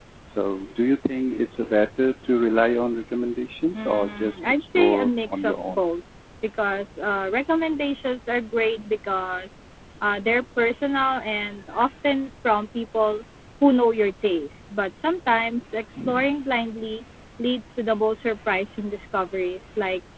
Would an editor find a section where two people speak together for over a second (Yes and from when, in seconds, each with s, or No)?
Yes, from 3.8 s